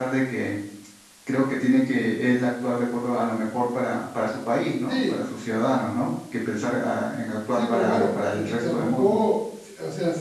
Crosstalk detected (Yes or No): Yes